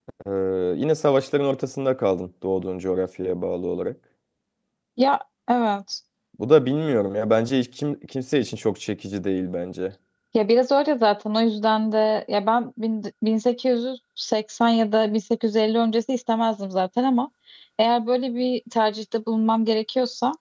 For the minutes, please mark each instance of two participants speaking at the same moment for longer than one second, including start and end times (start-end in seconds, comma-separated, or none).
none